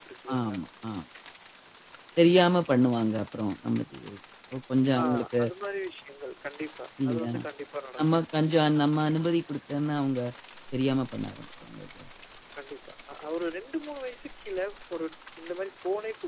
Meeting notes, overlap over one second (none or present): none